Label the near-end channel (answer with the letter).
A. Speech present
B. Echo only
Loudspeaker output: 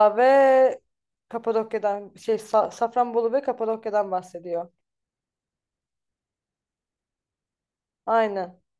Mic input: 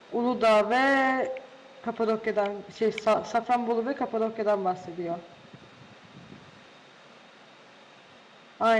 B